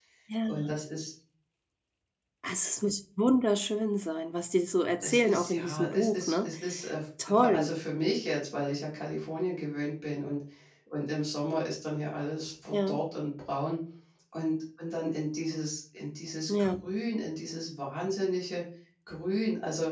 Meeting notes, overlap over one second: present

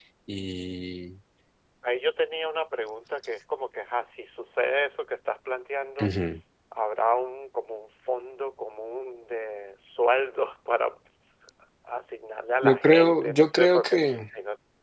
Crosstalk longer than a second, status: present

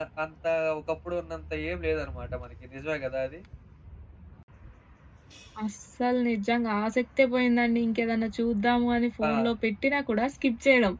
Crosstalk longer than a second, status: none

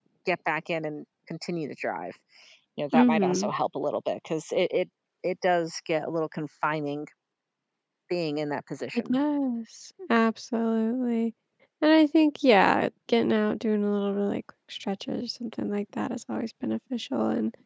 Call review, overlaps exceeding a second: none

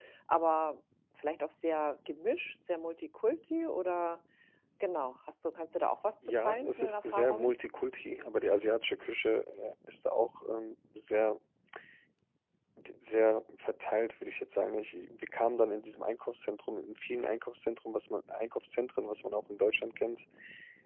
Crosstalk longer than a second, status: present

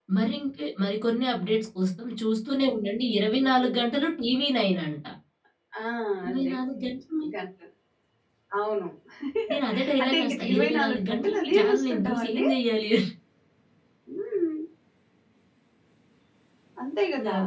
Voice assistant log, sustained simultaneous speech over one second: present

